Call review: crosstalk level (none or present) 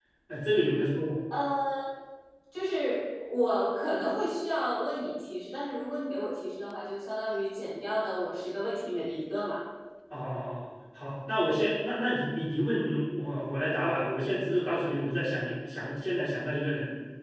none